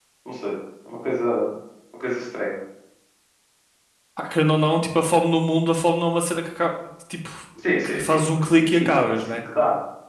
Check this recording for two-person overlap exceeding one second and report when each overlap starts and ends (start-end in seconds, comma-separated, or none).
7.8-9.4